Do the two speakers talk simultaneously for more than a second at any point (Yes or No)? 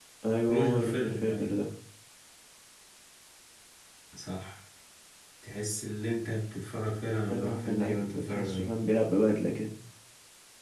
Yes